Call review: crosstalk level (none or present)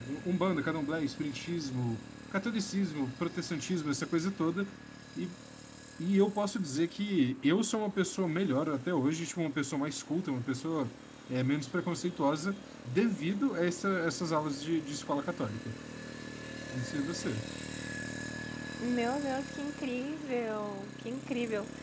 none